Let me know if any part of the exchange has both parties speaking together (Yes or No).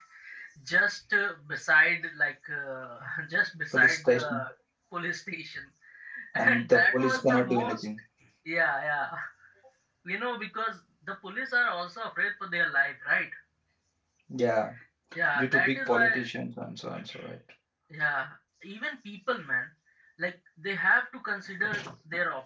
Yes